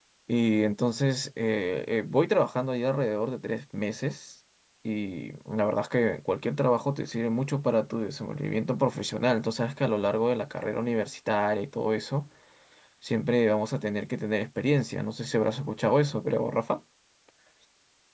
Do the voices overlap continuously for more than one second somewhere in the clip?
No

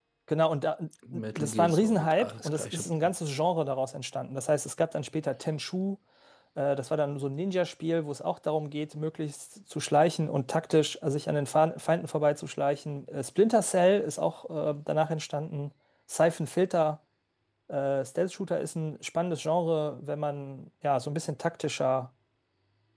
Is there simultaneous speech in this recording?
Yes, from 1.4 s

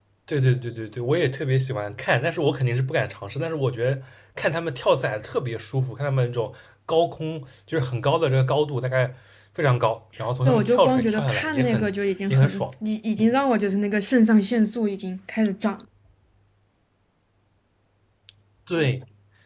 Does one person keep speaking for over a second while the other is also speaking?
Yes, from 10.4 s

